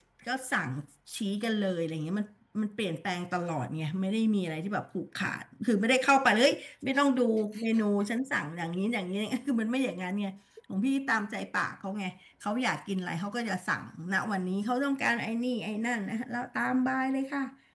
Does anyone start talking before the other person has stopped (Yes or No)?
No